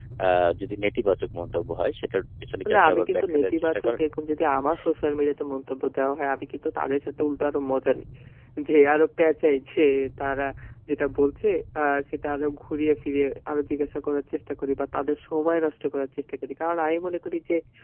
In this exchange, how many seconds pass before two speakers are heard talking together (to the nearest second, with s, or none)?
3 s